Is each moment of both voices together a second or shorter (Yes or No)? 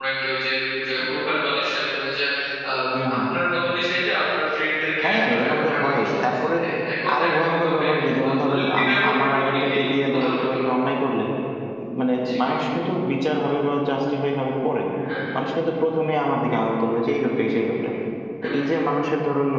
No